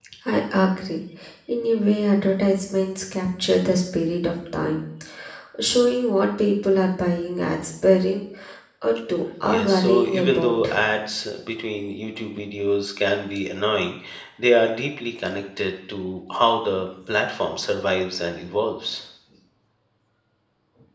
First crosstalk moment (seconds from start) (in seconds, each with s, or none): 9.4 s